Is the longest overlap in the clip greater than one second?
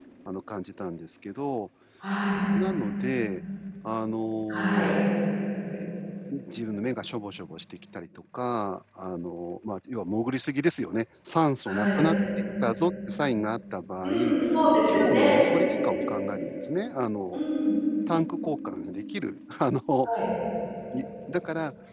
No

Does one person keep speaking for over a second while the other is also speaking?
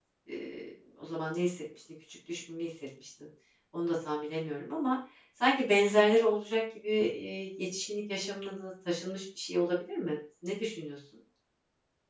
No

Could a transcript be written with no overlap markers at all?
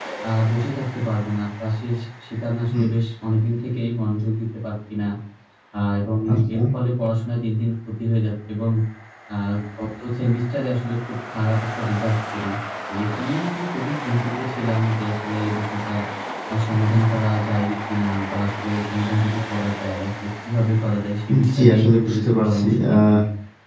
No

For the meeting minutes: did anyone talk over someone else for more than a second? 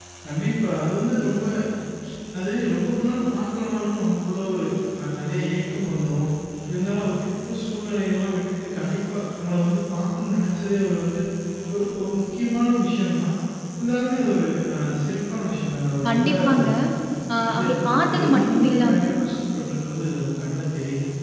Yes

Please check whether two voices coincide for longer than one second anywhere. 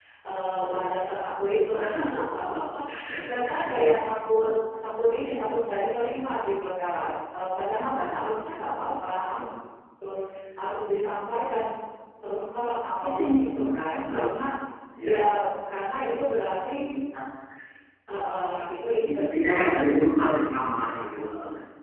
Yes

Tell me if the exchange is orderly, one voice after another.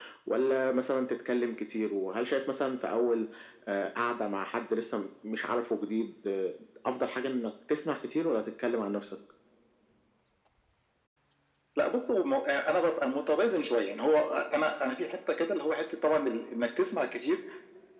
Yes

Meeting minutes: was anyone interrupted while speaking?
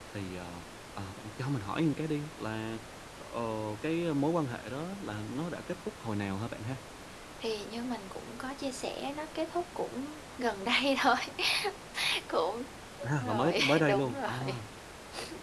Yes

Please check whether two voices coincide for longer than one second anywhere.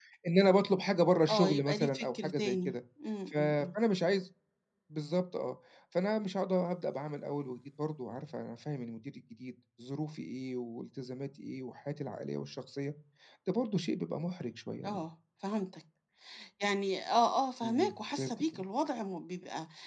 Yes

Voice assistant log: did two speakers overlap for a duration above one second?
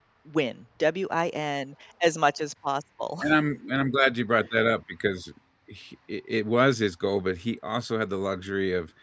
No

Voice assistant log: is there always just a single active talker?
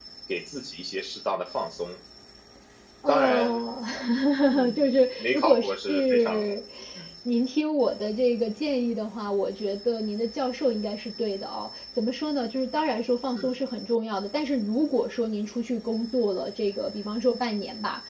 No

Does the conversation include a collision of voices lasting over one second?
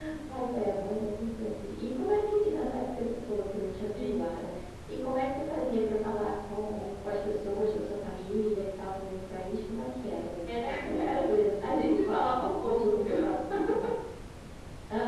Yes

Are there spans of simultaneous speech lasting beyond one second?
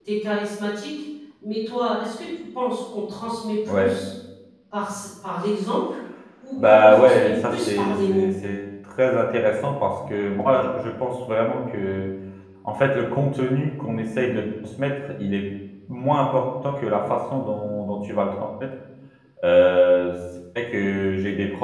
Yes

